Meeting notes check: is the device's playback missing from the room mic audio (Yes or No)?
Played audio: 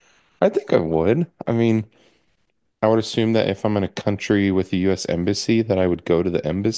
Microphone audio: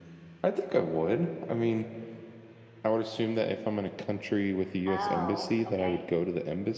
No